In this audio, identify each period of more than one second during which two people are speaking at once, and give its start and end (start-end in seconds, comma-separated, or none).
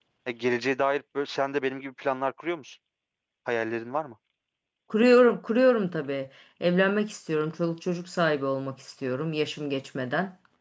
none